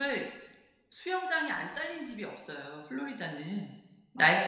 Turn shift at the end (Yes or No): Yes